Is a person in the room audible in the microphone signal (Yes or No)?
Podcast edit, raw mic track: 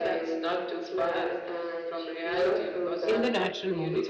Yes